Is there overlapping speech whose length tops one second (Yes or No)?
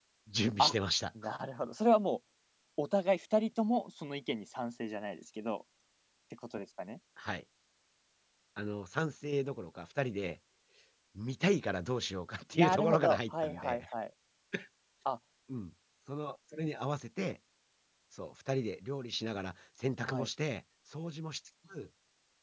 Yes